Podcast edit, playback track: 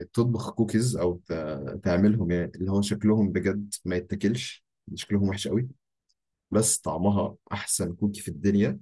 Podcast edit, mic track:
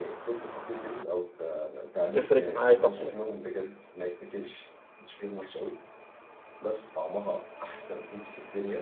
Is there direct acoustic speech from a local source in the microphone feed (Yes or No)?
Yes